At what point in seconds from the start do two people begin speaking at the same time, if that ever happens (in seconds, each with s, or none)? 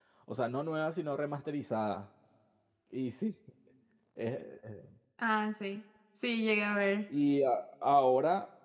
none